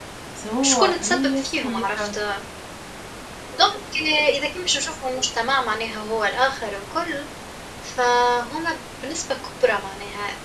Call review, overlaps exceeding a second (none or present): present